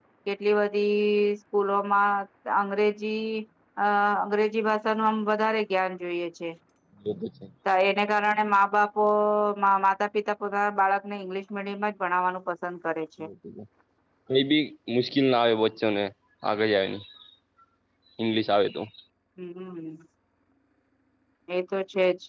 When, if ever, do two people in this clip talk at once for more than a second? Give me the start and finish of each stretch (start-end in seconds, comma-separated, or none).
none